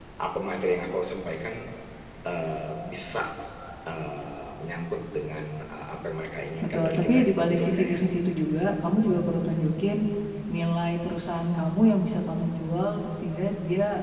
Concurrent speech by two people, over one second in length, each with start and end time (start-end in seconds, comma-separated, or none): 6.6-8.0